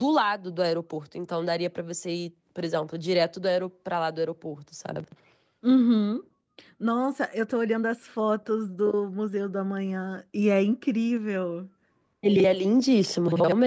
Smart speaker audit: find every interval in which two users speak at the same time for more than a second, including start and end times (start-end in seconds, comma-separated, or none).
none